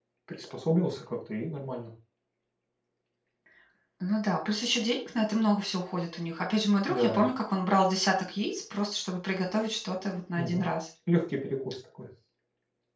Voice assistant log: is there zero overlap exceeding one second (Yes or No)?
Yes